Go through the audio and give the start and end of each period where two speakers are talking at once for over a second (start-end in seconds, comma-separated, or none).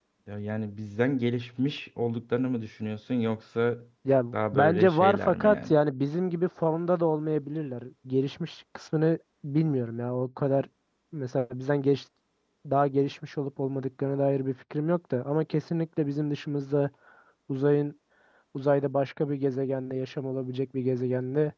4.3-5.7